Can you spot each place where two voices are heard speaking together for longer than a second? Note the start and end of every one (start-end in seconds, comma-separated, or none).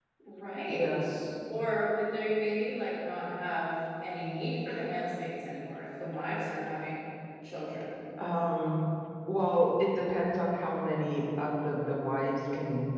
none